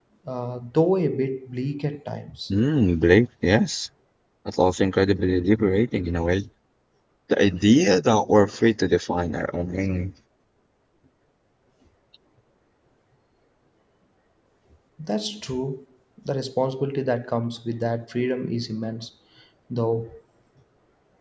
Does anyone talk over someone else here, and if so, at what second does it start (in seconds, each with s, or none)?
none